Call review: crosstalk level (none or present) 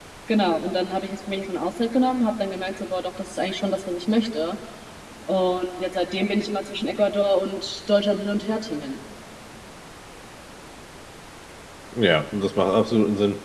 none